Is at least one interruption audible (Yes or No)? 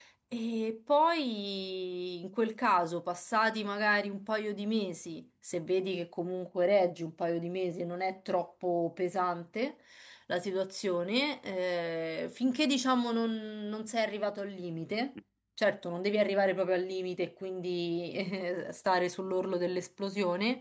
No